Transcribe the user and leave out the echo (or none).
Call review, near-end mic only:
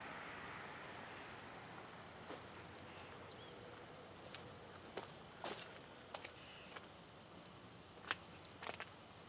none